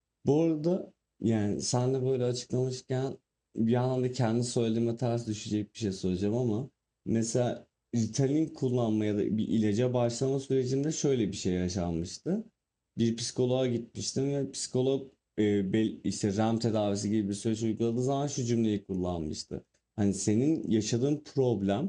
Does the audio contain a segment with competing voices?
No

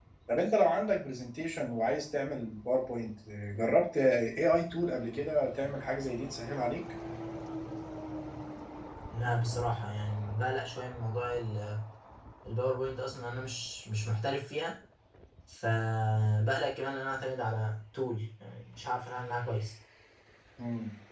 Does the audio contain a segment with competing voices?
No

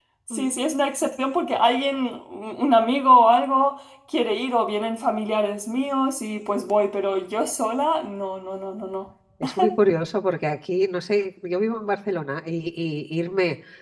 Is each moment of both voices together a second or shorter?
Yes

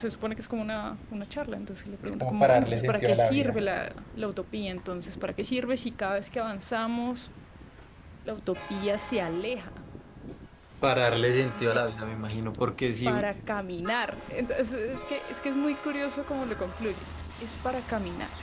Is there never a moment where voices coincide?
No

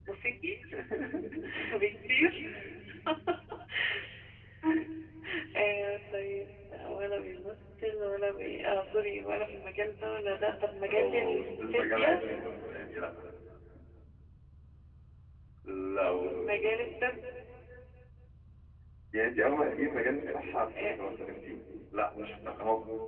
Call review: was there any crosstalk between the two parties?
Yes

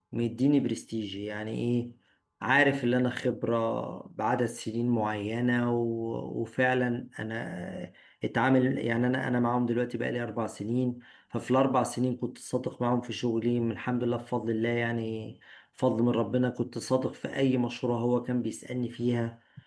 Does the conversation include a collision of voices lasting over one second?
No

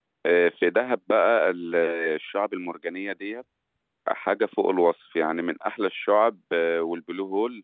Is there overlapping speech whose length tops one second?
No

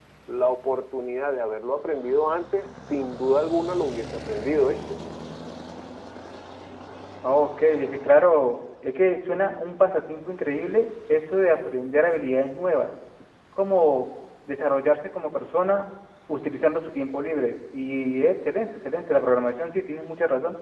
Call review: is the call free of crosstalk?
Yes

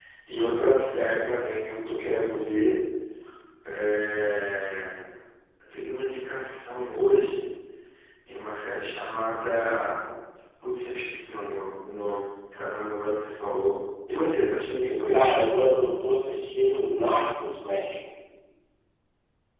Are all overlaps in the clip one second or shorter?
Yes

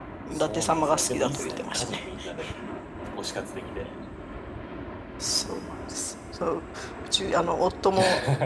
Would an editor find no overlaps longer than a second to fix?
No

